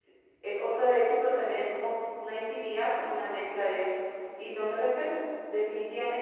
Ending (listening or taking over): listening